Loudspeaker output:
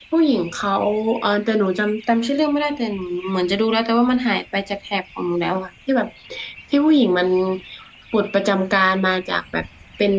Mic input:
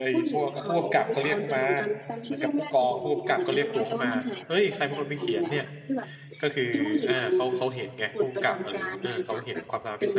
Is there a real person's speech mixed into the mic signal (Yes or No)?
Yes